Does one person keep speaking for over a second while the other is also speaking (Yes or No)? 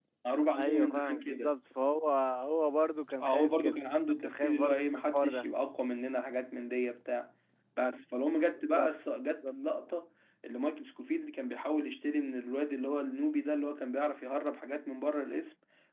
Yes